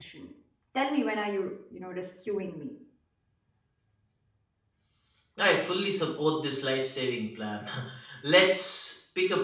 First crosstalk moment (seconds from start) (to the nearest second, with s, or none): none